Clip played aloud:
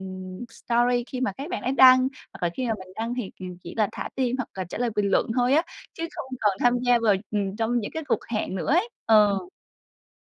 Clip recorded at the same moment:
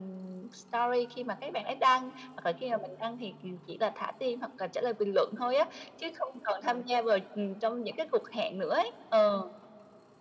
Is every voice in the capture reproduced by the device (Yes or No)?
Yes